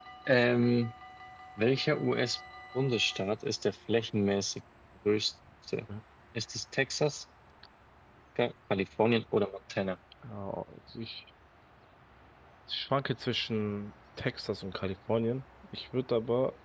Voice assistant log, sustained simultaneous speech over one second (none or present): none